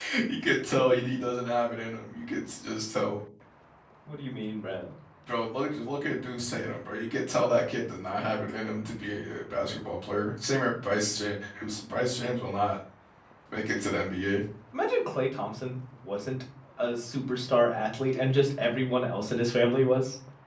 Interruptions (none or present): none